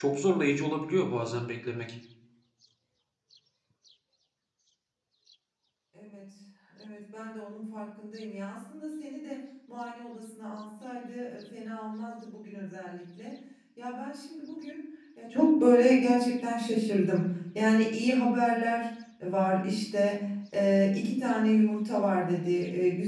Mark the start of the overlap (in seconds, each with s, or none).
none